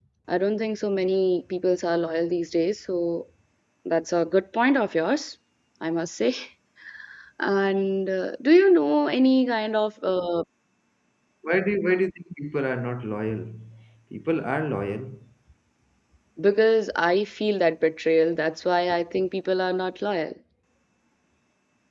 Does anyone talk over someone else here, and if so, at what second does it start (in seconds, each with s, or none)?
none